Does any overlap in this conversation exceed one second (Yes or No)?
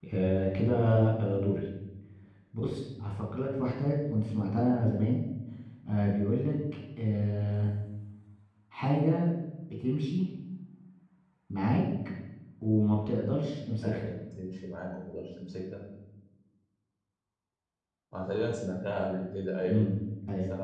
No